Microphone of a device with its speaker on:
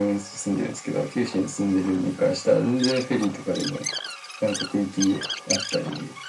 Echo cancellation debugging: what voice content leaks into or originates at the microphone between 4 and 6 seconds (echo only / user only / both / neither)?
echo only